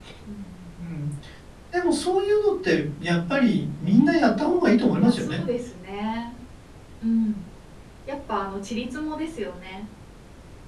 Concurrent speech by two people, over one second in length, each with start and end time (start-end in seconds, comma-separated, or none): none